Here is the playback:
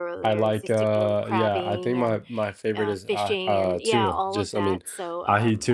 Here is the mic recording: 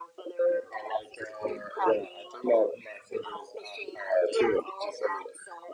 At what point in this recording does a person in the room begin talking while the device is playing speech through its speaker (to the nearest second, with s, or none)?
none